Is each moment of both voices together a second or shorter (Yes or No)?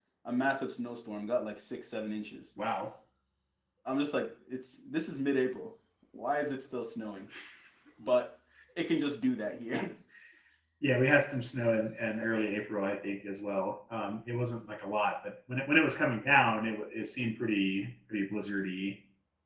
Yes